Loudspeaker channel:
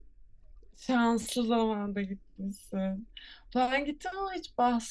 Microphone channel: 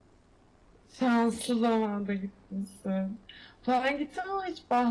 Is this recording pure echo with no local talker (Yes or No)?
Yes